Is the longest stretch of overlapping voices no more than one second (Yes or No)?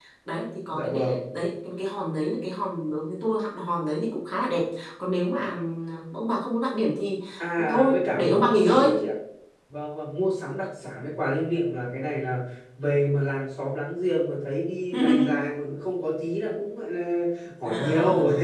No